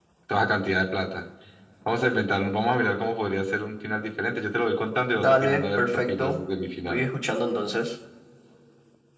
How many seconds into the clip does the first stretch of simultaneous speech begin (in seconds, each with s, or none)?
5.1 s